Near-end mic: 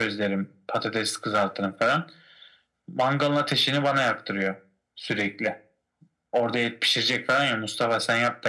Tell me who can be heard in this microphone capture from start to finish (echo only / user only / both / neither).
echo only